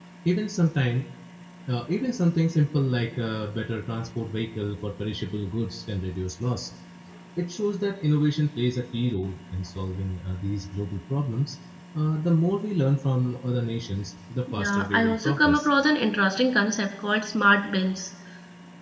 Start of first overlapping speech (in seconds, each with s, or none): 14.5 s